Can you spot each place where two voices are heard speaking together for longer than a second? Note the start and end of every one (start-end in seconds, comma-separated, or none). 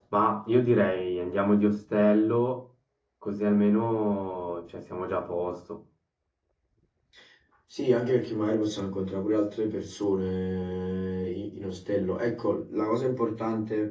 none